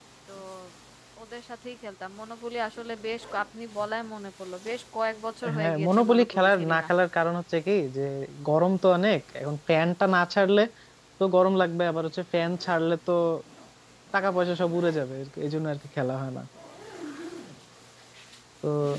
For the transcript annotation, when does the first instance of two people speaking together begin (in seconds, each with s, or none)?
5.4 s